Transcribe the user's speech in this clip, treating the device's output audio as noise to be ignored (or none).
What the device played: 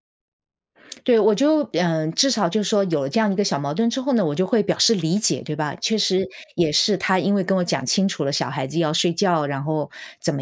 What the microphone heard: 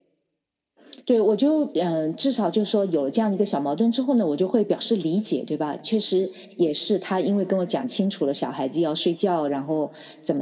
none